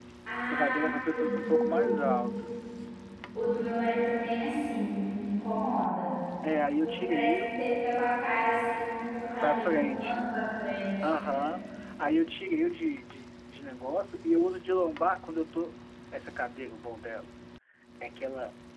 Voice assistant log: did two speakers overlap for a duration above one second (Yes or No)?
Yes